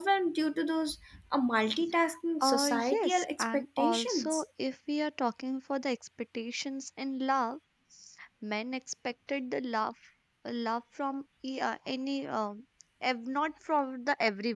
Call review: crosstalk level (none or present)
present